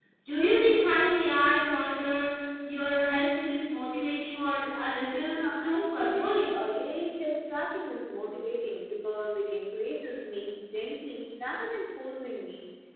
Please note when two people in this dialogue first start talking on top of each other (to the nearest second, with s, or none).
5 s